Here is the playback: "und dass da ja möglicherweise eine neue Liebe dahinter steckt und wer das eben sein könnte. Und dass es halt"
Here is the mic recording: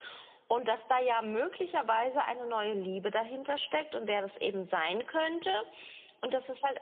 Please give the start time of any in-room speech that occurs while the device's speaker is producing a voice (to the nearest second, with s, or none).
none